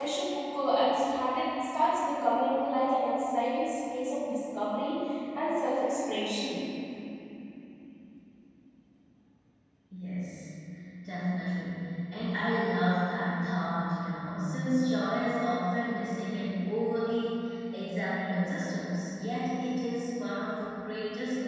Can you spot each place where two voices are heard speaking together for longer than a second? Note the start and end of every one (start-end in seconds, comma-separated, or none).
none